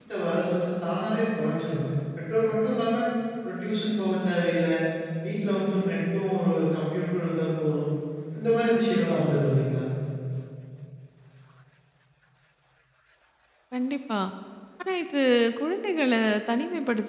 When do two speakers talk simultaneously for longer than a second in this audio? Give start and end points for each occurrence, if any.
none

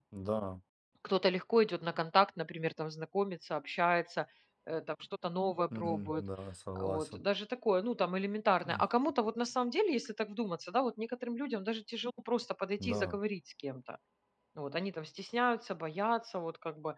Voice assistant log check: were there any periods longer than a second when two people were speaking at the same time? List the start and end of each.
none

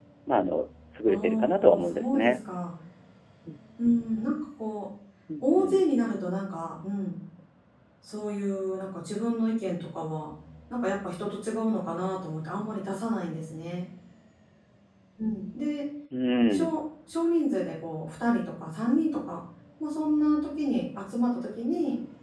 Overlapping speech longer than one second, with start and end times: 1.1-2.4

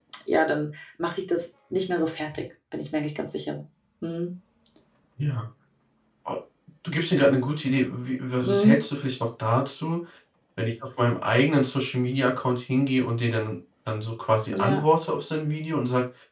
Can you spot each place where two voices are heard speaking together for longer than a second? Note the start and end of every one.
none

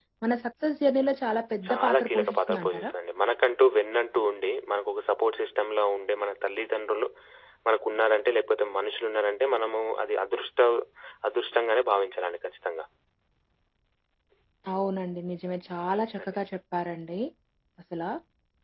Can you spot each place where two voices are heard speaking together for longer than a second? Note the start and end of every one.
1.7-2.9

